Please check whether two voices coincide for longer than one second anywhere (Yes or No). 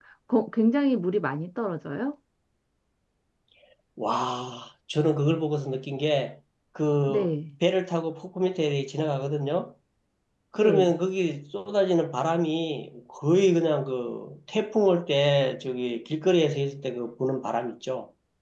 No